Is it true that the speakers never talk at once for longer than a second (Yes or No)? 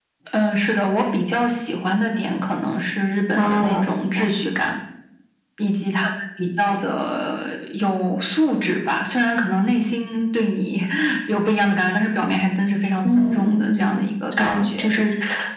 No